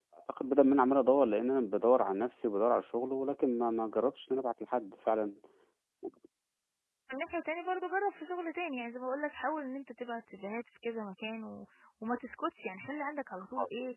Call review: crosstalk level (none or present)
none